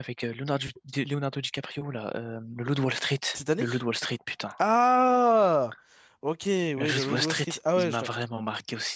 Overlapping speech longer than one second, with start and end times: 6.8-8.0

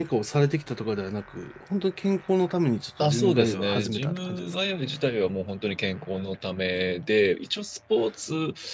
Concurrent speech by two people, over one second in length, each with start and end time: 3.0-4.5

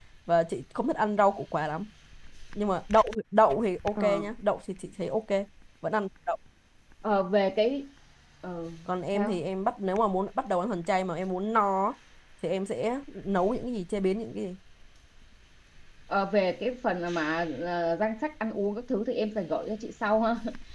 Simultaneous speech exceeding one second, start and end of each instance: none

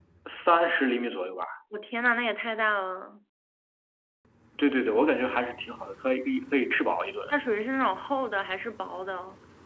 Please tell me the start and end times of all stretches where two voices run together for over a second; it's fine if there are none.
none

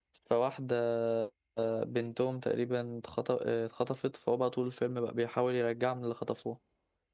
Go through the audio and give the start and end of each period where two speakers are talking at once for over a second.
none

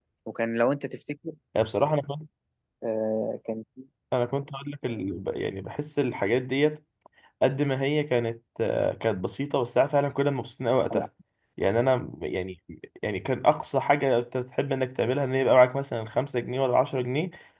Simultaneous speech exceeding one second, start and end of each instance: none

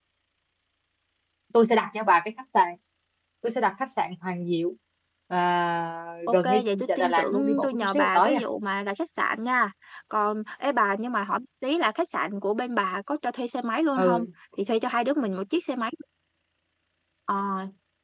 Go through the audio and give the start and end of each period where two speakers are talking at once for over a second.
6.3-8.4

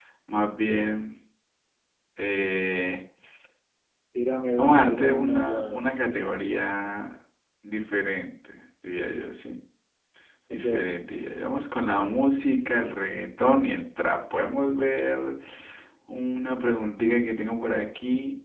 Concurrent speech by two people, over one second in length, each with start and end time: 4.6-5.8

